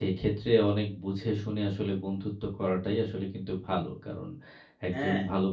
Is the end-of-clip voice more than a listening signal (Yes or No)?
No